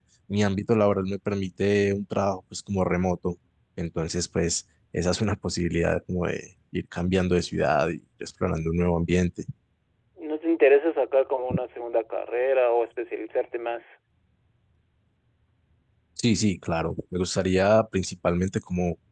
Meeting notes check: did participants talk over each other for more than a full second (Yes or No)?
No